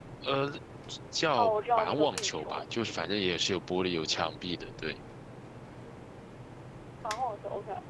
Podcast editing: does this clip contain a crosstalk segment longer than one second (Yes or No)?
Yes